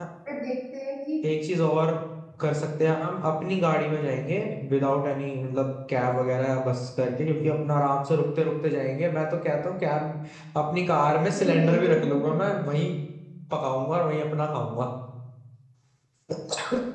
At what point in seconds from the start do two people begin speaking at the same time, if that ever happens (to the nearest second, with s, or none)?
11 s